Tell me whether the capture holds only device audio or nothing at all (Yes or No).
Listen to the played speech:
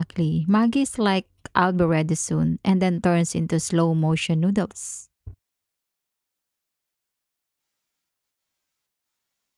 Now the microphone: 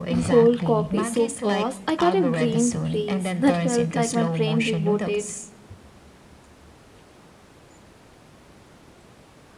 No